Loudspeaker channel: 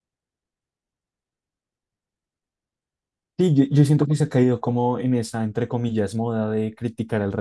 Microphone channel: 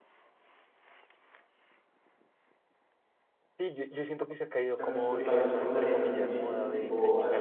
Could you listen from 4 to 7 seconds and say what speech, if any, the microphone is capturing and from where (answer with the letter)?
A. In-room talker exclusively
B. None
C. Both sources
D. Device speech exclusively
C